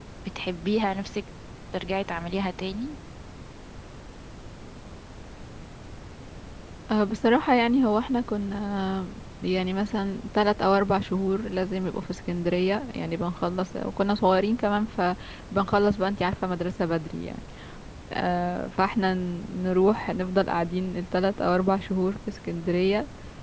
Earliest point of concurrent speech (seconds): none

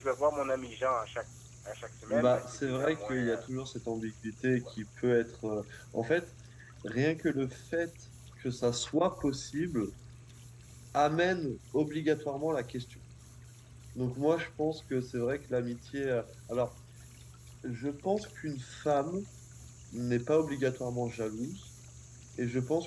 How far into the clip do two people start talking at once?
2.1 s

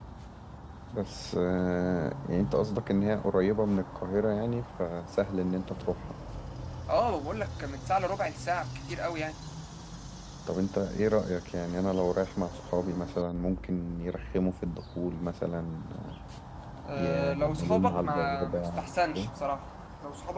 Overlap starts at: 17.0 s

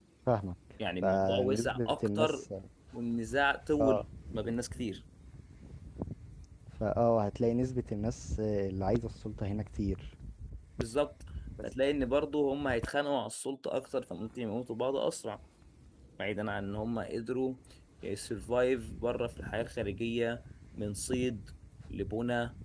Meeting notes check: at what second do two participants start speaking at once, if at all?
1.0 s

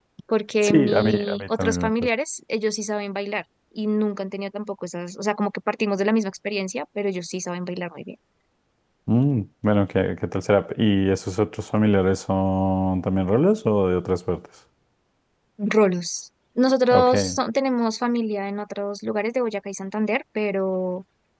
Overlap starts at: 0.6 s

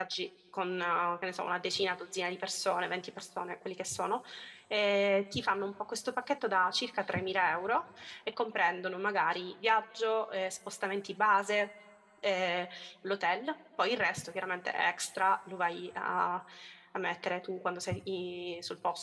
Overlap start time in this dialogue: none

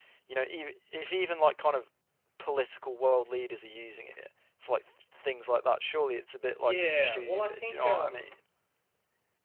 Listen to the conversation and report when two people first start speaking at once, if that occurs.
6.5 s

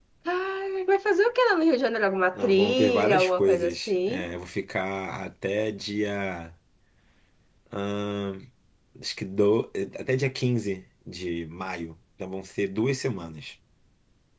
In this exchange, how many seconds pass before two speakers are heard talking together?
2.3 s

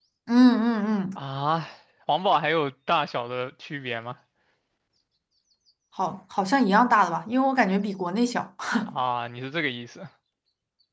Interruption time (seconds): none

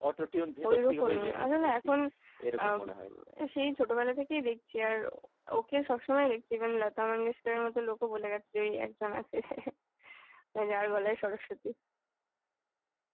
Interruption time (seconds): 0.7 s

